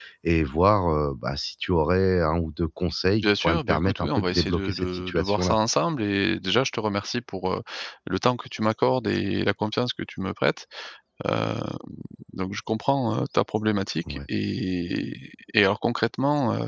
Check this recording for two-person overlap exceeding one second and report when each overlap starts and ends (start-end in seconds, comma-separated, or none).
3.2-5.5